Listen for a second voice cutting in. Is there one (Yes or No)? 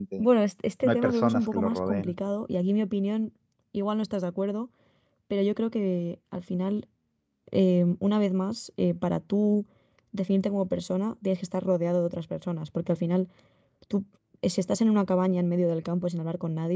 Yes